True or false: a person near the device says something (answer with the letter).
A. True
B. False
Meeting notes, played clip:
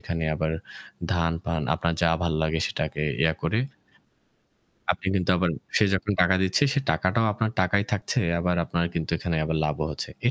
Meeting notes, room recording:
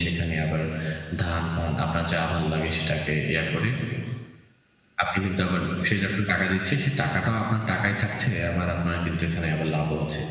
B